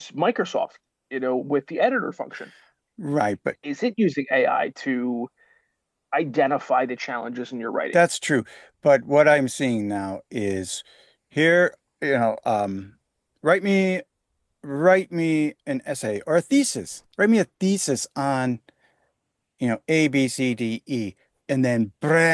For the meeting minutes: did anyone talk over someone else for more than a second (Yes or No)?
No